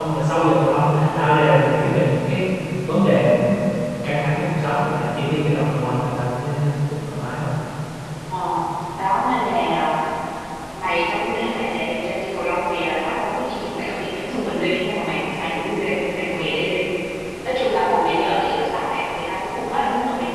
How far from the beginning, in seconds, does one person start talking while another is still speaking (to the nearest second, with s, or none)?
none